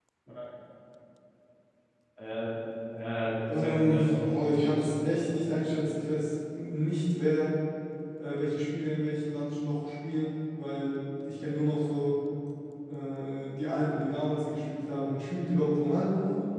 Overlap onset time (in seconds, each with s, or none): 3.5 s